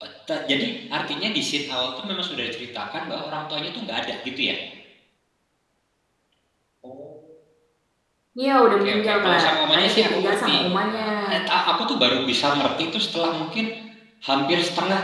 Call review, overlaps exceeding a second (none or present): present